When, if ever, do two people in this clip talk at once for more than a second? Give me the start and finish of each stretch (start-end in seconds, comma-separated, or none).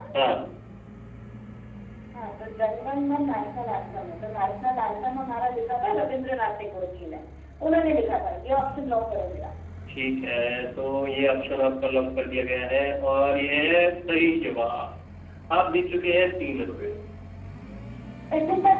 none